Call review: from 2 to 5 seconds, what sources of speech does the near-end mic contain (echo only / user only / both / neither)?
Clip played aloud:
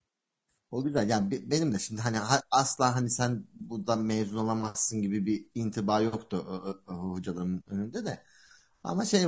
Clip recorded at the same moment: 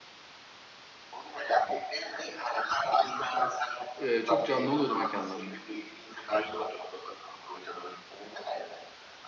both